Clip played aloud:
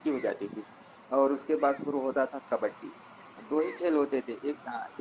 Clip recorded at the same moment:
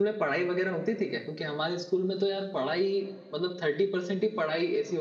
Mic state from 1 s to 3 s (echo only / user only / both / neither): user only